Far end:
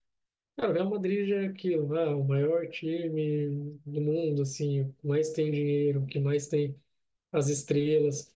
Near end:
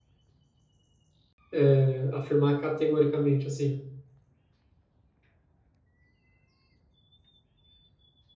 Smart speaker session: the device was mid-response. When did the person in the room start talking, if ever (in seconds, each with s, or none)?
1.5 s